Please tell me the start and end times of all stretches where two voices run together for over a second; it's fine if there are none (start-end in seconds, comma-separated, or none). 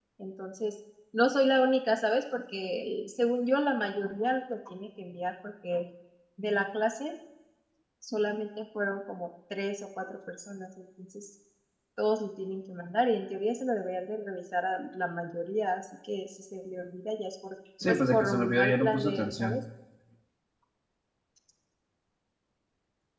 17.8-19.6